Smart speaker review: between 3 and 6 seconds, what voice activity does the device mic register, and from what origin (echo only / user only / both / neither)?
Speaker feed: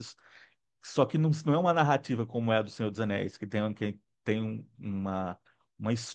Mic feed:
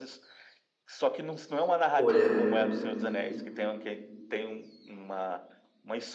echo only